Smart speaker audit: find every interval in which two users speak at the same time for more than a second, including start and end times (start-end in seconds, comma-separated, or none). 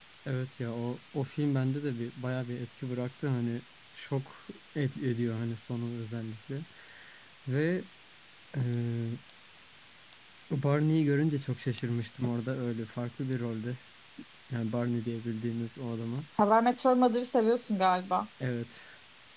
none